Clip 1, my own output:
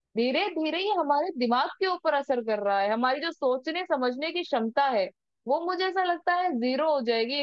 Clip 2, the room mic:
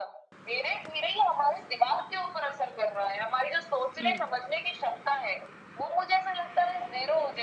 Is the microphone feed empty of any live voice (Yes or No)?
No